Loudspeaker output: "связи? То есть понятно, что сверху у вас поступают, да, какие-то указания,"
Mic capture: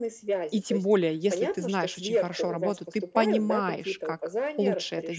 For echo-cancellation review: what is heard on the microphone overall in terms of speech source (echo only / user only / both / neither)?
both